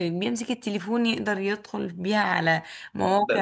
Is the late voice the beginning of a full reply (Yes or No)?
Yes